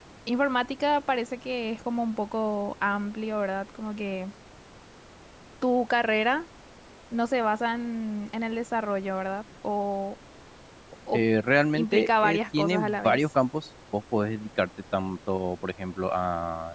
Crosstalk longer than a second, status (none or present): present